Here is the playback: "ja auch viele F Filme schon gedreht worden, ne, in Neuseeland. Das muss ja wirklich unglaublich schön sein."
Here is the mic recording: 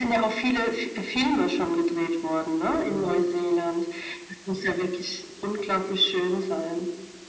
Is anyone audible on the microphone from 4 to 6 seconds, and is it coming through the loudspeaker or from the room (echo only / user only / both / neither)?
echo only